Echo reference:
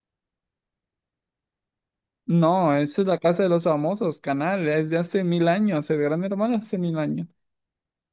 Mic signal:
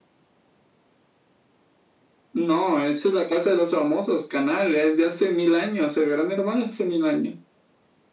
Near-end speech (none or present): none